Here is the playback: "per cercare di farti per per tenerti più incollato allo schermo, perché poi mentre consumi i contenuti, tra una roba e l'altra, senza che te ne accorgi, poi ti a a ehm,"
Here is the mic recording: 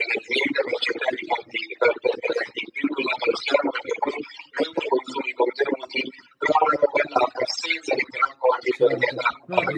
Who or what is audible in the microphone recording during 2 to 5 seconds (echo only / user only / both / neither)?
echo only